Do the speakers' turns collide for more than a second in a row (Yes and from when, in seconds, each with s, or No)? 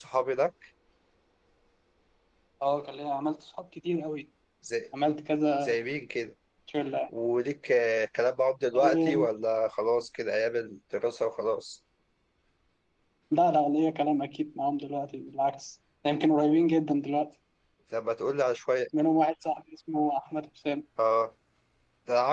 No